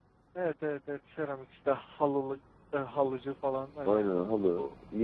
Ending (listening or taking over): taking over